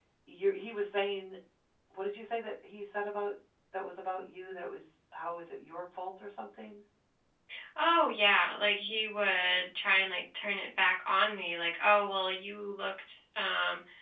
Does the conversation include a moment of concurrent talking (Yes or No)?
No